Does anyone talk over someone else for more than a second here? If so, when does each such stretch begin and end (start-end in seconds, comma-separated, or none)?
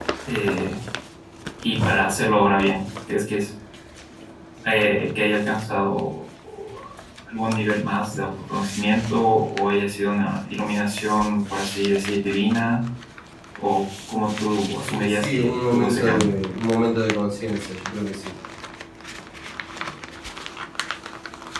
14.8-16.4